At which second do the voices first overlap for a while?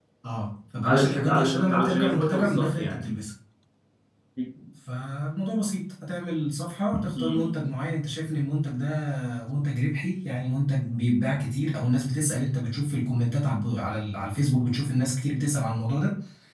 1 s

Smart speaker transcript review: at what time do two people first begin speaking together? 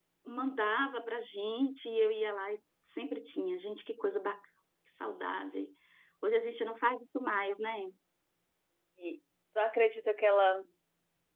none

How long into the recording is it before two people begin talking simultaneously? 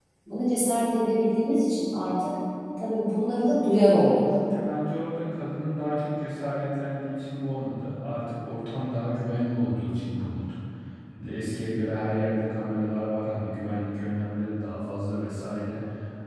none

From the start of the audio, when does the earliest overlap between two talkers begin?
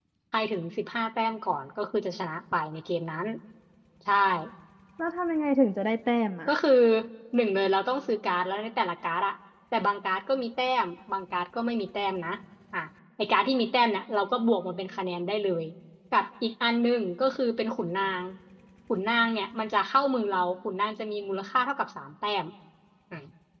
none

